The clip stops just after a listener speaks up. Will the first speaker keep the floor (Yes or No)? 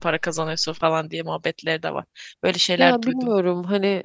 No